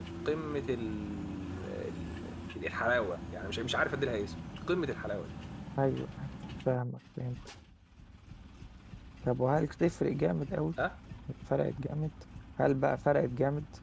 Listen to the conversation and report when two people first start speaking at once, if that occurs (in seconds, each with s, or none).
none